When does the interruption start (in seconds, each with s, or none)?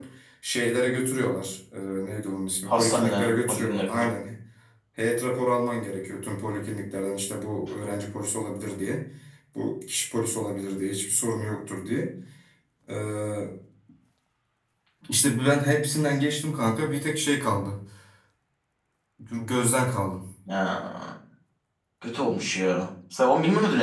2.7 s